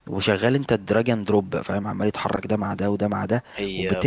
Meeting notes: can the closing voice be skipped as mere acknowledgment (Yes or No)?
Yes